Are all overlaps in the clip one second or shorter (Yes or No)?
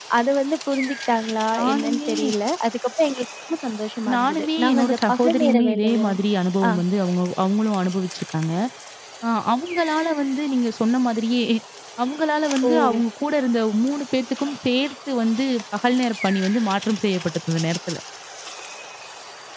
No